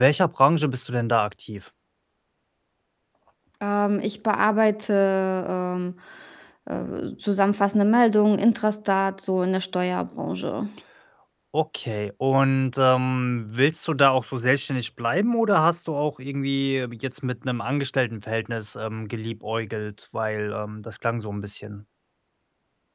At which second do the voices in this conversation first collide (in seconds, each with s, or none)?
none